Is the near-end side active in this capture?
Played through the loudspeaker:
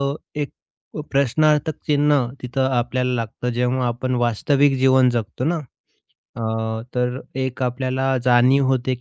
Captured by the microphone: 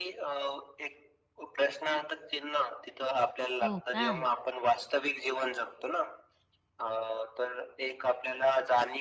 Yes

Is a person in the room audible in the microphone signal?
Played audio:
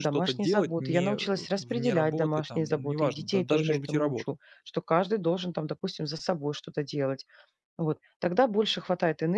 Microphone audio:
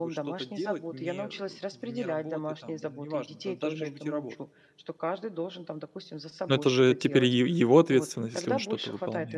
Yes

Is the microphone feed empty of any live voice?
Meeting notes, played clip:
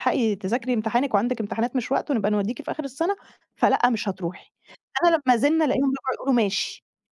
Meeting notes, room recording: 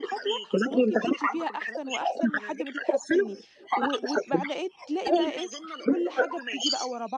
No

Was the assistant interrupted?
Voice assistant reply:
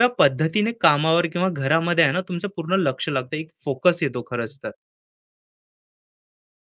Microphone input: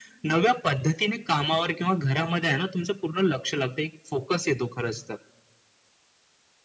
No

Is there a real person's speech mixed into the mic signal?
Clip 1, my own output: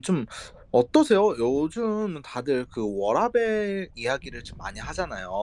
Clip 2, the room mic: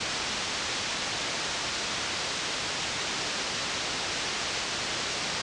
No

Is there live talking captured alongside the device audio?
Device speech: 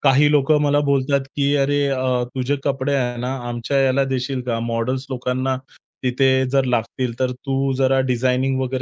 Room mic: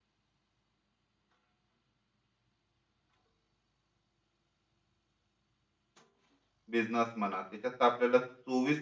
Yes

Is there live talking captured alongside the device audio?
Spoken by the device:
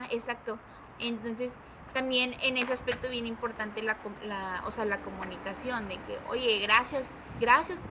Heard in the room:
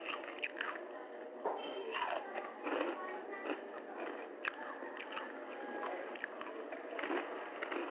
No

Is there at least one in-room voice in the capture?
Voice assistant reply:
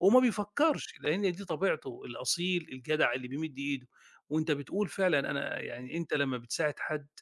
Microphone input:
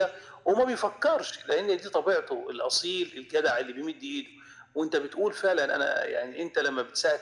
No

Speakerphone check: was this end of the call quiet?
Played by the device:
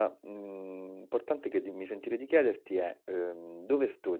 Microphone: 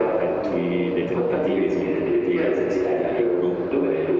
No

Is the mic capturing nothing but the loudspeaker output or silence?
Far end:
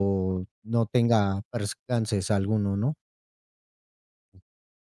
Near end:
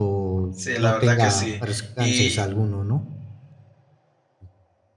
No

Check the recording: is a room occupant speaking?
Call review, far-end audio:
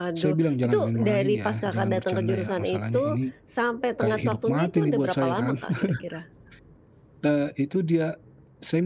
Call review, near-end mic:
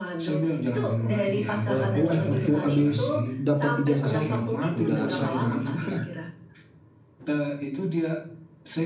Yes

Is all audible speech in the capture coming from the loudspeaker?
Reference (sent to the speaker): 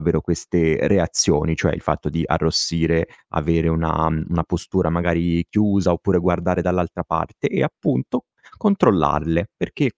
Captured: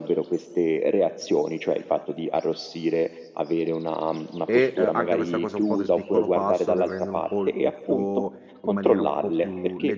No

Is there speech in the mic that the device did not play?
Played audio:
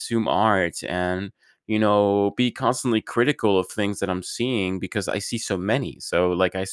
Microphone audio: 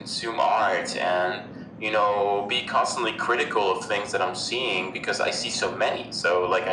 No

